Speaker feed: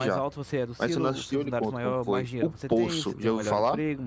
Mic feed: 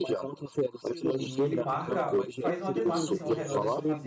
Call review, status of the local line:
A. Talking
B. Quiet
A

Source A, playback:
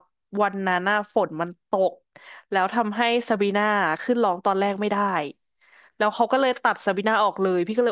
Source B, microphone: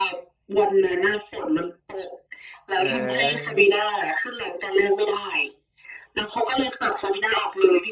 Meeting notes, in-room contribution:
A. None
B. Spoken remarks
B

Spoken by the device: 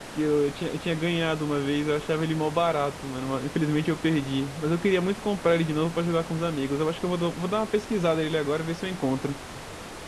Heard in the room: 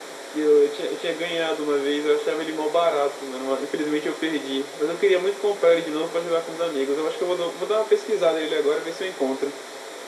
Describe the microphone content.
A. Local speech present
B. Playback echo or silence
B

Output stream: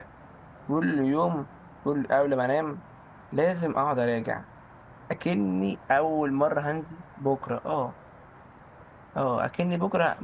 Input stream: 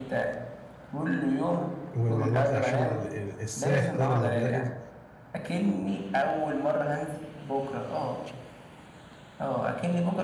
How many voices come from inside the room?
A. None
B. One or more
B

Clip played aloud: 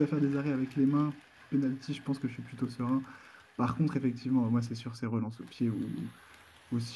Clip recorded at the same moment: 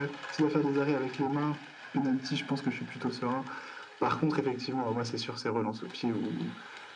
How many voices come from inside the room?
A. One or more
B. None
B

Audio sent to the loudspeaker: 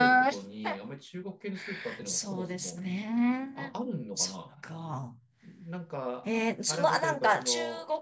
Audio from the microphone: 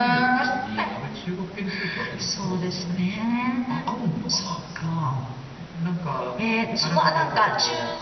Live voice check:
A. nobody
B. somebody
A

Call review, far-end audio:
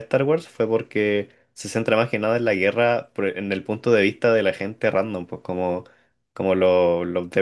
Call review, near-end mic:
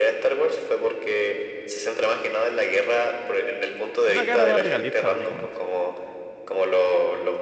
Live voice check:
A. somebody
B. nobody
A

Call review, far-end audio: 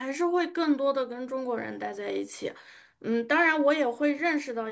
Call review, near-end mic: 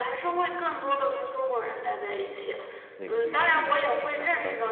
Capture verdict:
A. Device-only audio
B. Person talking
B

